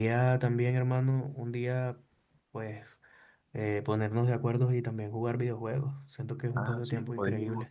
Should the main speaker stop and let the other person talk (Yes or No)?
Yes